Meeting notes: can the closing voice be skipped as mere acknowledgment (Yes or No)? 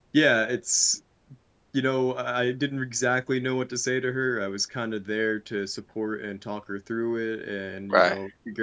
Yes